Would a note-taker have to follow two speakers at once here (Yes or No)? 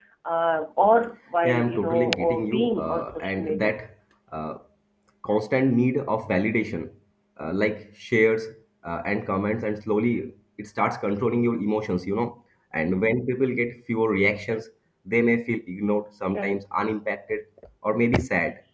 Yes